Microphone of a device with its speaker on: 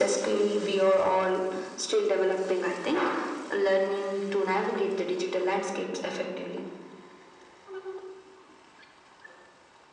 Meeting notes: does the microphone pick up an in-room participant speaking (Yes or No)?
No